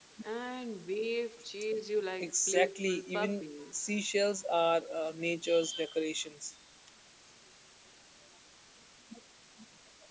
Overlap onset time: 2.2 s

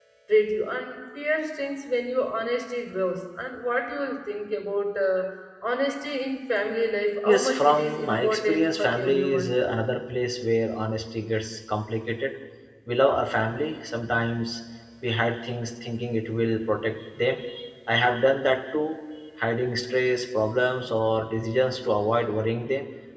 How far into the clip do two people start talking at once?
7.2 s

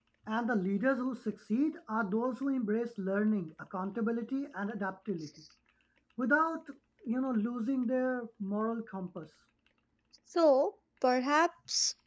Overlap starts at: none

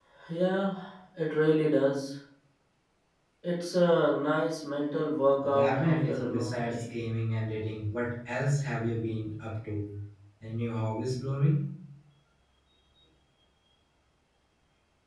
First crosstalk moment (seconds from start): 5.4 s

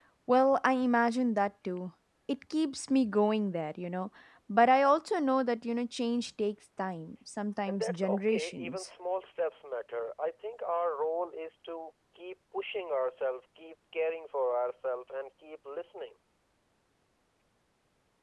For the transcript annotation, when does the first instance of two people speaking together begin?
7.7 s

